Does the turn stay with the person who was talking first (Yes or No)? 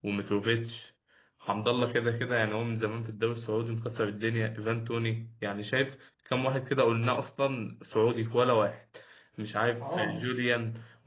Yes